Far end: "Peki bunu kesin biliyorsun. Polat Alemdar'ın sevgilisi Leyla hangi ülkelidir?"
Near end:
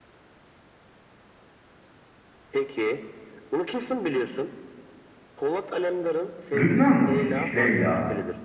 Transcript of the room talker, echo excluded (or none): Lübnanlı mıymış Leyla?